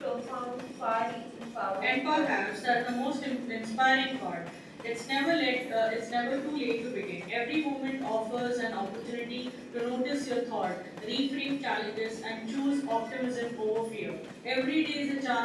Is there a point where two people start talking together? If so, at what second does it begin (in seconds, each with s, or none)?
1.8 s